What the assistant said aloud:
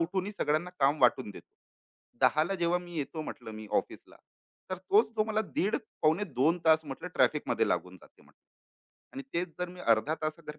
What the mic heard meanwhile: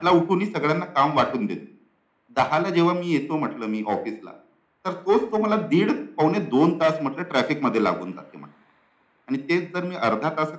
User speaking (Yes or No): No